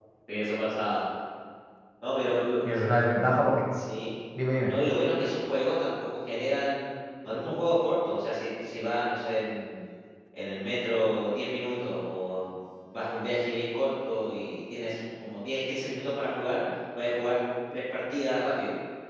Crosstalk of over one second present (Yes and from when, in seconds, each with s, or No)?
No